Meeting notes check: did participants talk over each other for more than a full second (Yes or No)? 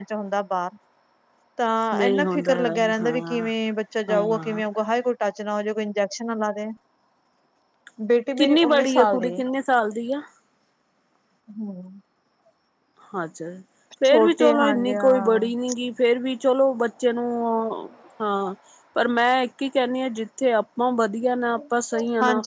Yes